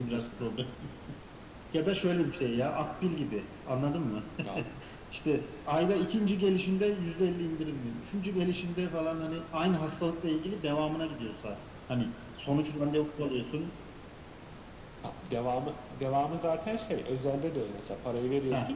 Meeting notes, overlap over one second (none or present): none